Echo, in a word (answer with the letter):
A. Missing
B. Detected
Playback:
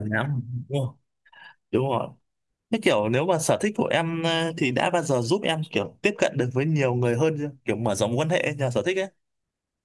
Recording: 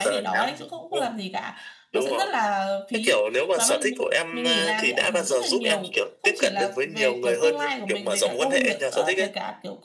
B